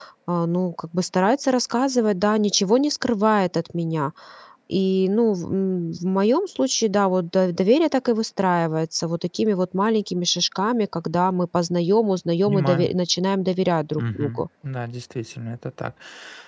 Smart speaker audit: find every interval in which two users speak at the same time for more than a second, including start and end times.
none

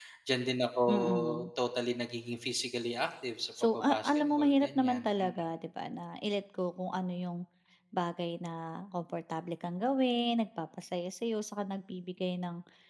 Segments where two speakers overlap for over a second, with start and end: 3.7-5.3

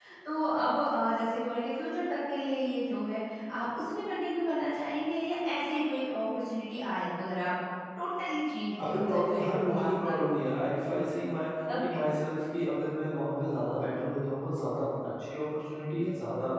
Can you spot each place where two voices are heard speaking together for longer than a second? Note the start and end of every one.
8.8-10.2

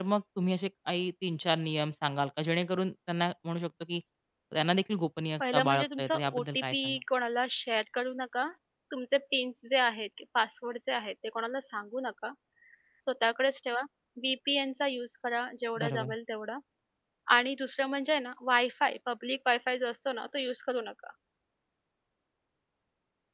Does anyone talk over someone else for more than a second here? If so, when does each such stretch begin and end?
5.4-7.0

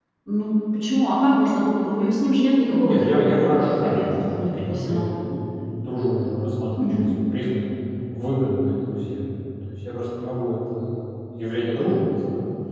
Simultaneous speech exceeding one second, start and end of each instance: 2.7-5.1

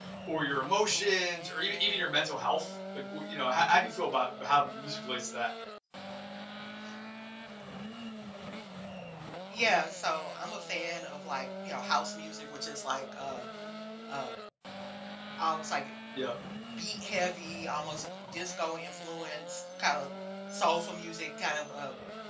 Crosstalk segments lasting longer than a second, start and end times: none

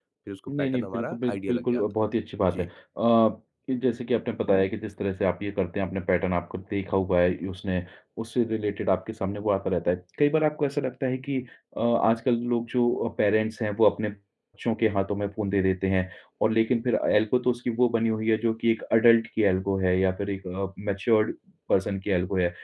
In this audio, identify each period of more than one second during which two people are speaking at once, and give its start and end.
0.6-1.8

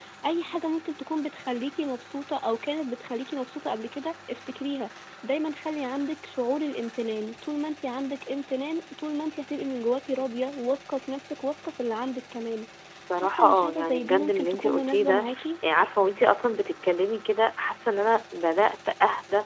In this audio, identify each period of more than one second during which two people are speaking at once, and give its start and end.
13.2-15.4

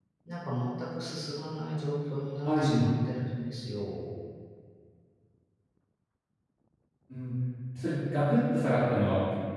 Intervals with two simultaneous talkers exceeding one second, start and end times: none

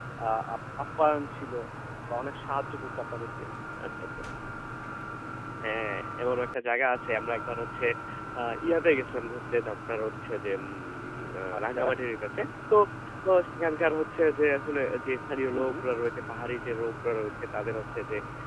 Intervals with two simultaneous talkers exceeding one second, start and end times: none

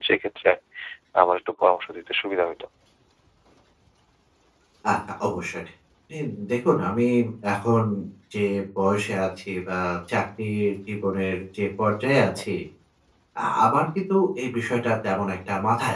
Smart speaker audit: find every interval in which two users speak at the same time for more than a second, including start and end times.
none

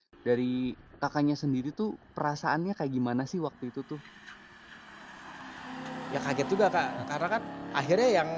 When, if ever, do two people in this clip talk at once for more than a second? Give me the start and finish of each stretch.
none

